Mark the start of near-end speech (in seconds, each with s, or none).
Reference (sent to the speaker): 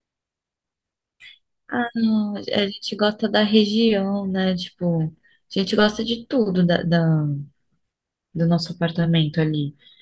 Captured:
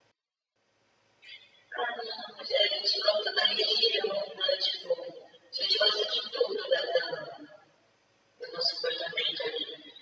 none